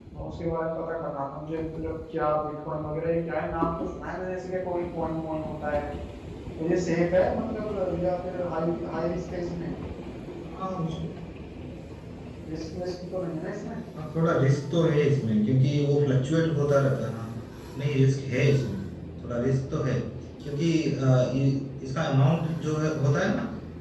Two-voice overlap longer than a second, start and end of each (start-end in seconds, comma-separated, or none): none